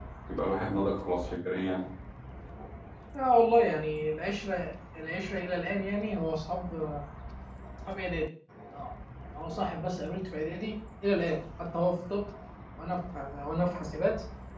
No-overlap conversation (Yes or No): Yes